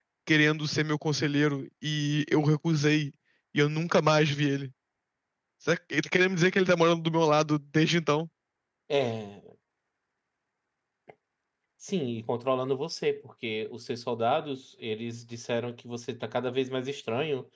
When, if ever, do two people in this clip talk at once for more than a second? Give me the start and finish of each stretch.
none

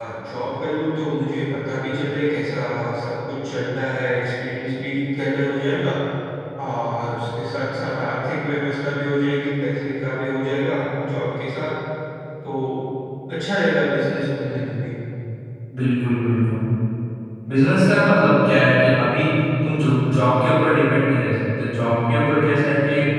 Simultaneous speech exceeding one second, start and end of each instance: none

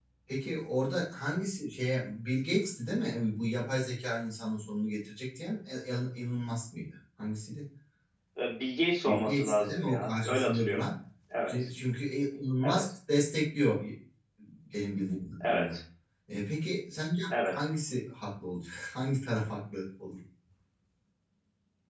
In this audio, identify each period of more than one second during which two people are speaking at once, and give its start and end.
9.1-10.9

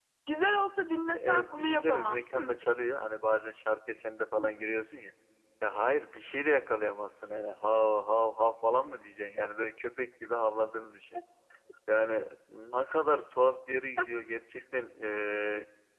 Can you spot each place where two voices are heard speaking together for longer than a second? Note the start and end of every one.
1.1-2.5

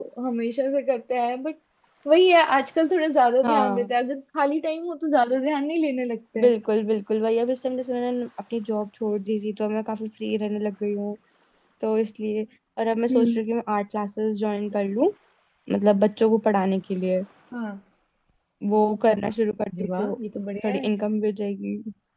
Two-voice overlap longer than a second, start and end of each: none

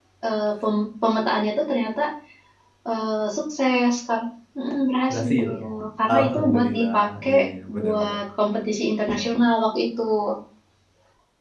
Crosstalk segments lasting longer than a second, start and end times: 6.2-7.4

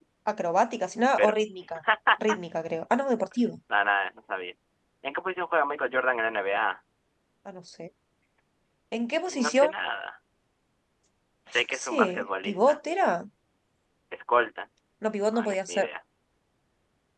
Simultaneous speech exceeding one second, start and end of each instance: 11.5-12.8

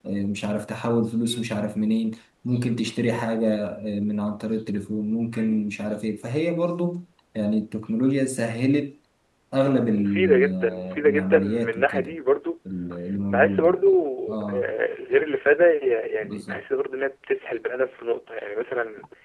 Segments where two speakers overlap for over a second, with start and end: 9.9-12.2

